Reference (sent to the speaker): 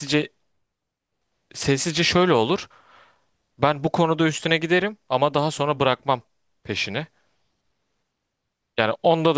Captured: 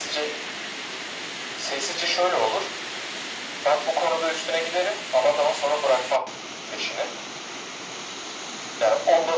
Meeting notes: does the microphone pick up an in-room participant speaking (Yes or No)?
No